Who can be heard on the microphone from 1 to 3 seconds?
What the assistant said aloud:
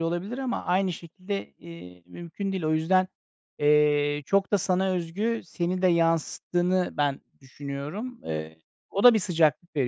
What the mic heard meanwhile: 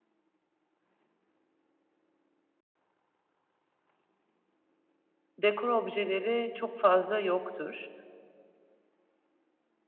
neither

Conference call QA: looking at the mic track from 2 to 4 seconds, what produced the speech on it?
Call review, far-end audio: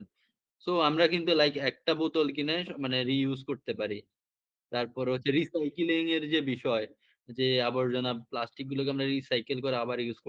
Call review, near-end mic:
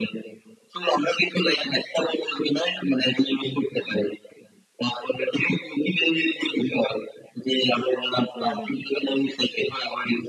echo only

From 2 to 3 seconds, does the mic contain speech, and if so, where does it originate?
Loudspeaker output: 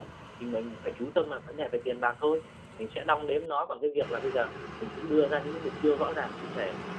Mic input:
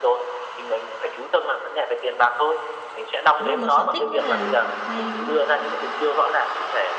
echo only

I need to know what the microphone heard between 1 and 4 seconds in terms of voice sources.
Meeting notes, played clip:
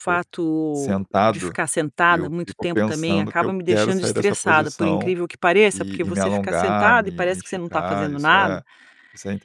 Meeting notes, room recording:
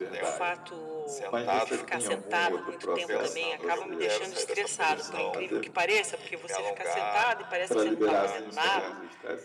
both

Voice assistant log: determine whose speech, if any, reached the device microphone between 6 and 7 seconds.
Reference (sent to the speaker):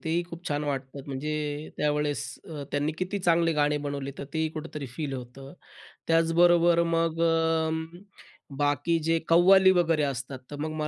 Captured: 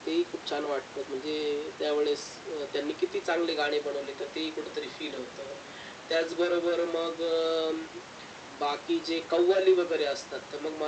echo only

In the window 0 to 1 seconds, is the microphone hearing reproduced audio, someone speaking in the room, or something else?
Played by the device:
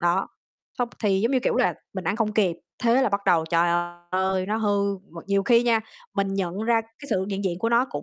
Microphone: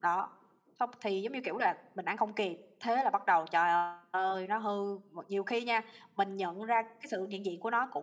echo only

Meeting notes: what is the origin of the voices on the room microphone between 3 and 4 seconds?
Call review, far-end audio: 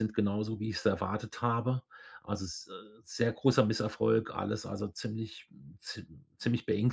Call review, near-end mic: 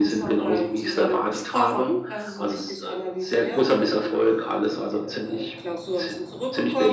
both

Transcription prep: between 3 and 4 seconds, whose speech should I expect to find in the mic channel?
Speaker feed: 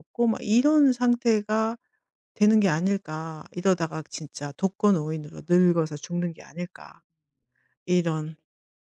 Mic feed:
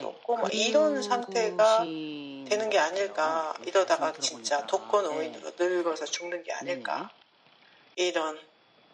both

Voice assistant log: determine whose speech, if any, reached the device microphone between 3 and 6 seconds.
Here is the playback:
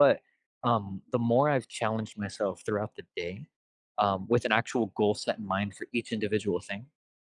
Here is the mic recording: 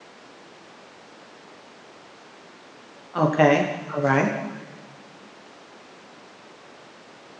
user only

